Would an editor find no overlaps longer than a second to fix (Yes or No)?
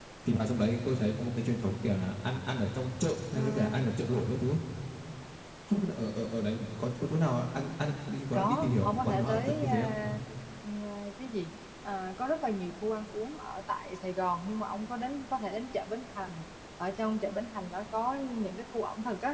No